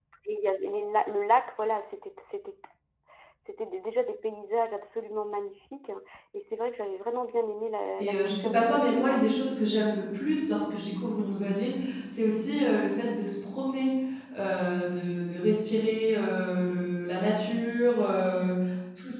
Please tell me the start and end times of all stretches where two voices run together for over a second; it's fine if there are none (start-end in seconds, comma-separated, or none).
8.0-9.5